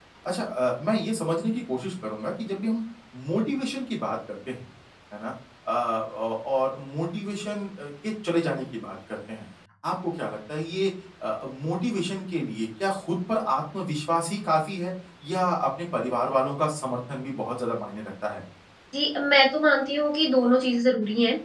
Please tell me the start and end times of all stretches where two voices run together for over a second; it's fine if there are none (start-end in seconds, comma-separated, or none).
none